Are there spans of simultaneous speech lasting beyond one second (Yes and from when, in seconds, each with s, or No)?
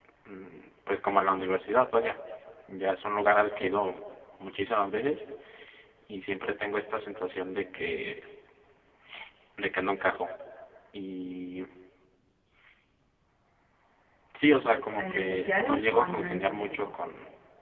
Yes, from 15.0 s